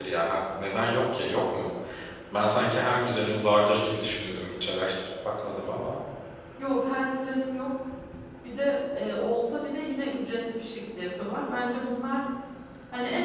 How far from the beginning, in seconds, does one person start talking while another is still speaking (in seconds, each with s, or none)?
none